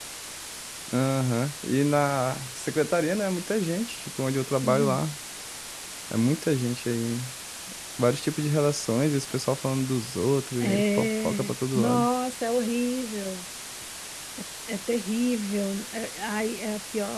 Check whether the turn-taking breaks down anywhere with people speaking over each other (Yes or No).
Yes